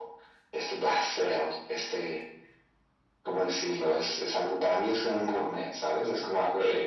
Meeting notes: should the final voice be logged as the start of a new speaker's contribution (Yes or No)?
Yes